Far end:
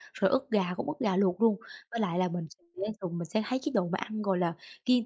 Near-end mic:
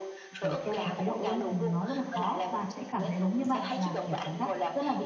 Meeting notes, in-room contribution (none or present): present